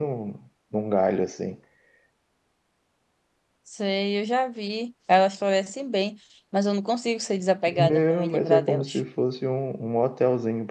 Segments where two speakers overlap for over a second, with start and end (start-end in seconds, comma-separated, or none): 7.7-9.0